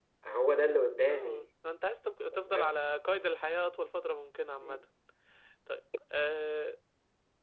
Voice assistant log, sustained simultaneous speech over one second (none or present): none